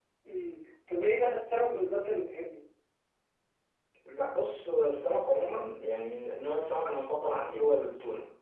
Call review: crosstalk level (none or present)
none